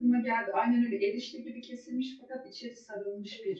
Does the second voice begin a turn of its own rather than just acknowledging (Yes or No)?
Yes